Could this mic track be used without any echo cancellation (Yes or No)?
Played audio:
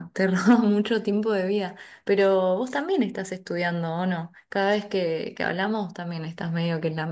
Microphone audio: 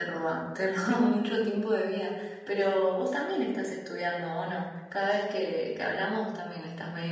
No